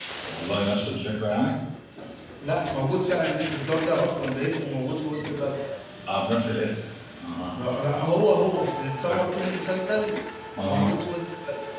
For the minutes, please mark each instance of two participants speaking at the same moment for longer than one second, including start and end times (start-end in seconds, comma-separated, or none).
none